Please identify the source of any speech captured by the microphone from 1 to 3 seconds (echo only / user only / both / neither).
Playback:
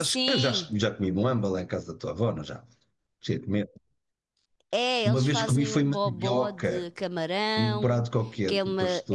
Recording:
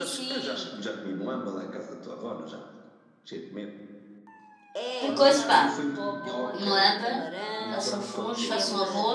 echo only